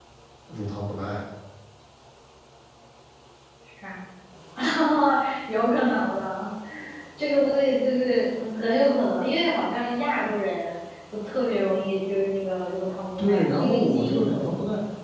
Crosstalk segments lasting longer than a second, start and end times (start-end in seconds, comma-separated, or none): 13.2-14.5